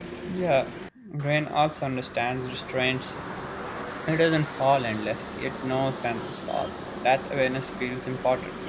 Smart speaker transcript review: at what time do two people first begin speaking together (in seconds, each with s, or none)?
none